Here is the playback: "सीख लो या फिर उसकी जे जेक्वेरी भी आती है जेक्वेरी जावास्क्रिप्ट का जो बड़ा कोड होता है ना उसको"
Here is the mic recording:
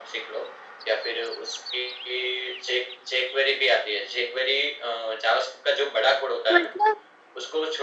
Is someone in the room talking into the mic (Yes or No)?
Yes